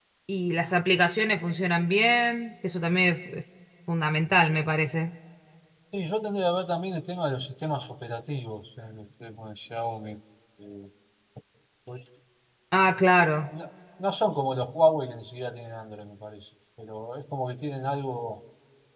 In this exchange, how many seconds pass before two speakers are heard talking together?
none

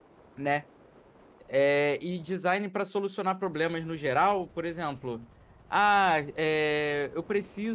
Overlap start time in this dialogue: none

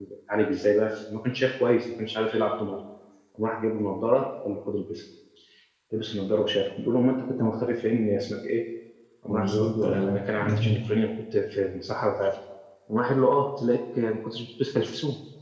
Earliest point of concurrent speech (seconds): 9.3 s

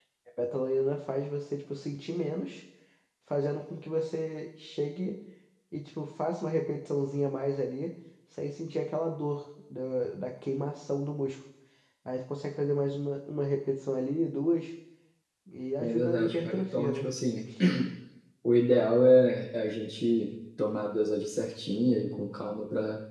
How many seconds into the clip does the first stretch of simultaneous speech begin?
15.8 s

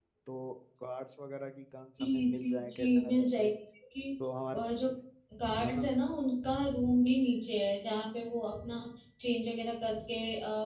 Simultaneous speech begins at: 2.0 s

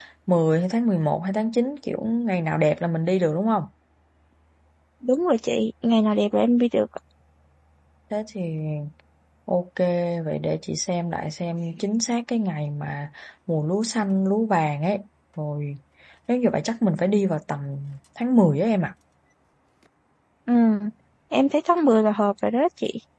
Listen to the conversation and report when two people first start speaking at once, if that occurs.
none

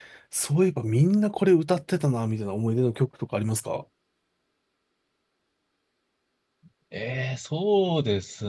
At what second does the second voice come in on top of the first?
none

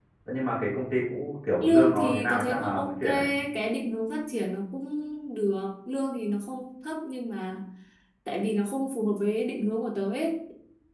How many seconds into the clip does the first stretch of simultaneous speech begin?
1.6 s

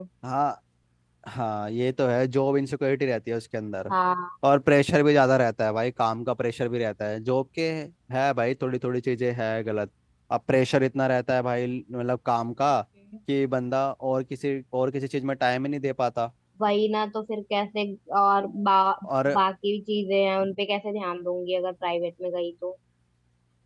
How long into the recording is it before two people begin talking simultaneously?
none

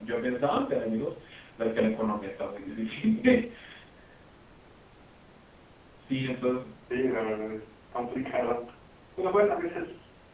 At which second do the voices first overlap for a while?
none

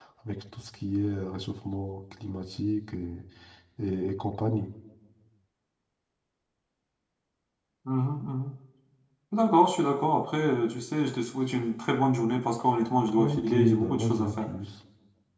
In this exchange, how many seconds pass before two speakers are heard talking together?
13.2 s

